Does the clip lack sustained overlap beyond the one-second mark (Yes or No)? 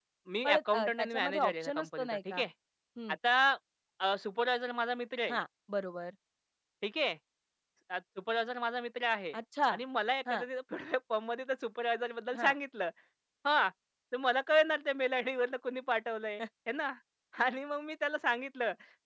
No